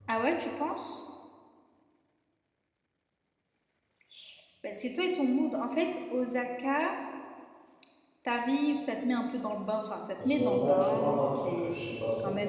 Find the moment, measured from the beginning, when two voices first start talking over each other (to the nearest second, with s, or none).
10 s